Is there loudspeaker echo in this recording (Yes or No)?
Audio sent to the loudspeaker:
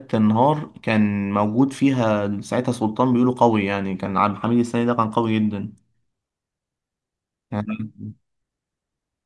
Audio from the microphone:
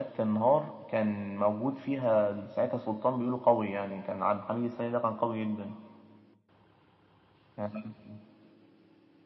Yes